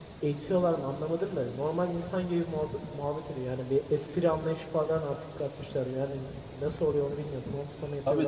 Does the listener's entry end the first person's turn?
Yes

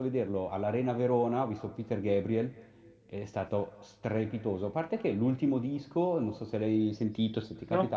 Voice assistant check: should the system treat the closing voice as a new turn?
No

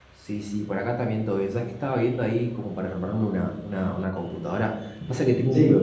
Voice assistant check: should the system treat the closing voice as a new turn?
No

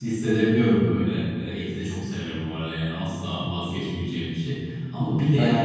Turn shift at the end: No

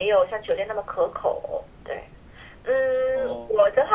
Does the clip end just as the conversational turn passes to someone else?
No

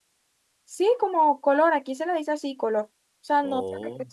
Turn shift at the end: No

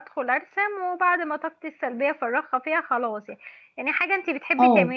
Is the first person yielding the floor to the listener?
No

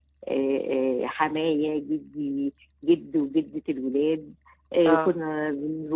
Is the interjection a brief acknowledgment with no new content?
Yes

